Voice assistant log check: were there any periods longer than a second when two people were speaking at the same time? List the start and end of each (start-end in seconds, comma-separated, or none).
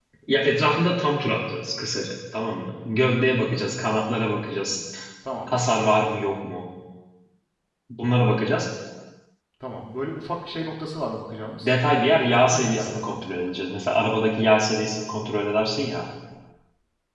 11.6-13.2